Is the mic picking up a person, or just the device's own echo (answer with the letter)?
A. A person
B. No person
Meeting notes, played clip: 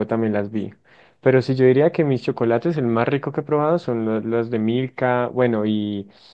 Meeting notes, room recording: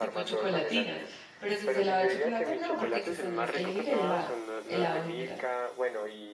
A